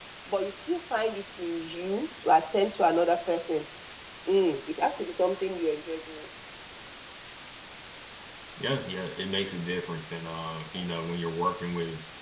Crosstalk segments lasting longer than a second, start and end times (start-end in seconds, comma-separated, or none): none